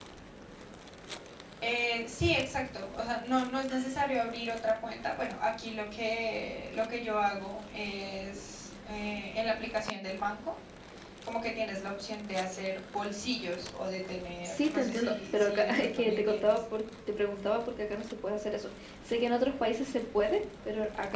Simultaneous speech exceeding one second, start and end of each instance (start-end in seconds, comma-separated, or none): 14.4-16.6